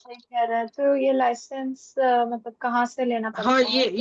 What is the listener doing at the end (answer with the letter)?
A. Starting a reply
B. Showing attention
A